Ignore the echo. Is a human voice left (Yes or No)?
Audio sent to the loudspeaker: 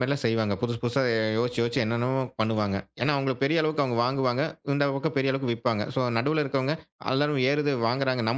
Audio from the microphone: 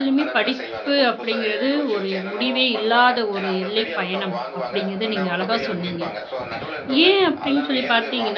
Yes